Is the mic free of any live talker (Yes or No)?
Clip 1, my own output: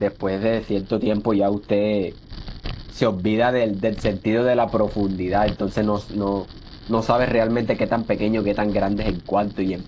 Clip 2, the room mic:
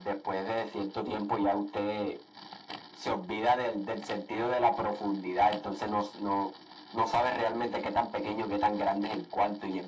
Yes